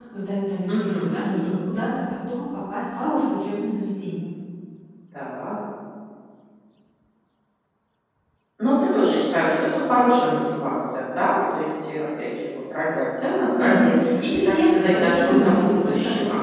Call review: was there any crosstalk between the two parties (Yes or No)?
Yes